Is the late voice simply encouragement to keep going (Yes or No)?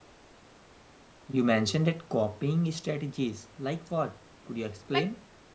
No